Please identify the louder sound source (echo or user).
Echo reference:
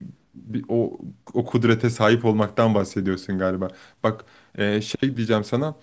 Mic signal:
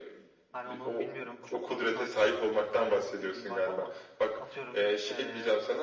echo